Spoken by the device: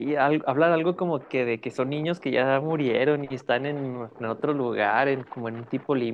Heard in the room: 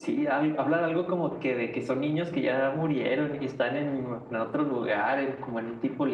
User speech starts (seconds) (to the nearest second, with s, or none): none